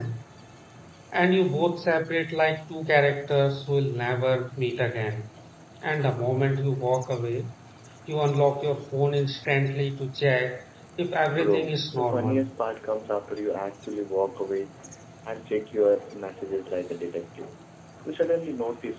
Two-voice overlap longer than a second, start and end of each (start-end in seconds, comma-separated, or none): 11.3-12.5